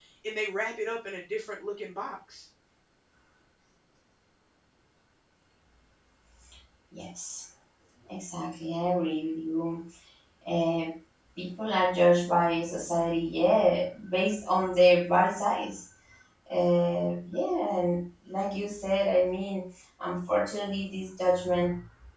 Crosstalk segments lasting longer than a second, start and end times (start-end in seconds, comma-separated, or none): none